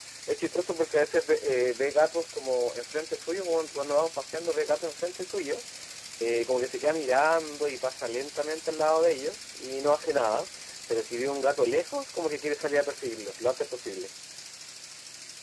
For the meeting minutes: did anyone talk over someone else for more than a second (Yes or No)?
No